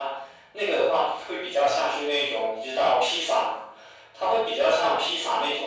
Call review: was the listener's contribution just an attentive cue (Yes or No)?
Yes